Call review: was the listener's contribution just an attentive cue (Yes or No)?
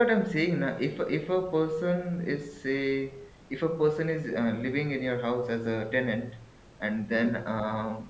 Yes